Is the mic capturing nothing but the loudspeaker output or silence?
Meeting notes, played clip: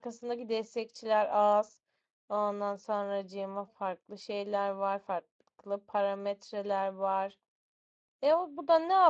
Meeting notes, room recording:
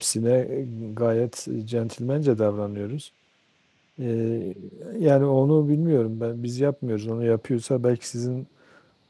No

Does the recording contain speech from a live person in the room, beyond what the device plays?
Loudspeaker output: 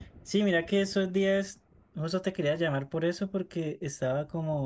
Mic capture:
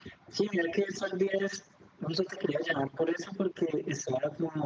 No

